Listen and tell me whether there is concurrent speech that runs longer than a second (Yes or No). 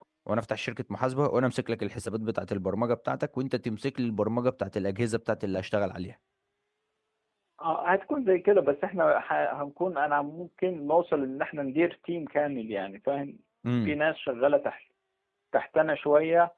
No